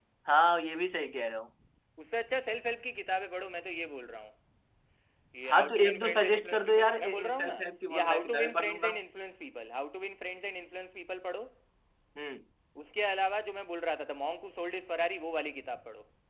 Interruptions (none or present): present